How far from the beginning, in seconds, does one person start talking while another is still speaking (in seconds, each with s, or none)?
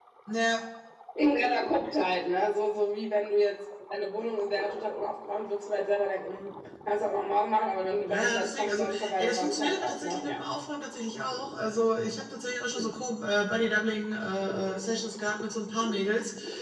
8.1 s